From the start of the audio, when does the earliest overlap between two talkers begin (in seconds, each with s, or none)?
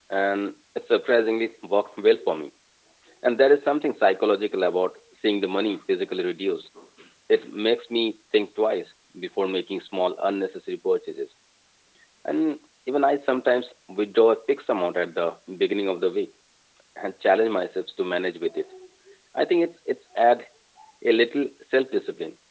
none